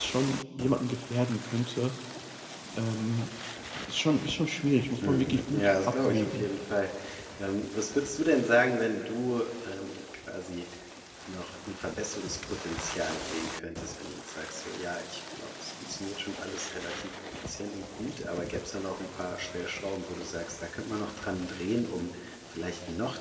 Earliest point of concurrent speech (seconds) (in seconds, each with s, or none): 5.0 s